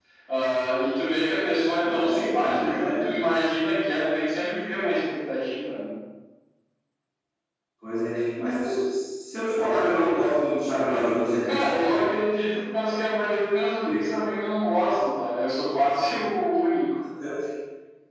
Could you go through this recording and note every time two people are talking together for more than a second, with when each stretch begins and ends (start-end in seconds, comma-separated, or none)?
1.8-3.0